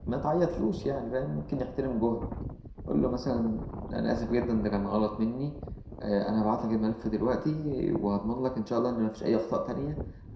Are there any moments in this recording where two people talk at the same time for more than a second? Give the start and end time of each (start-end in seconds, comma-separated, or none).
none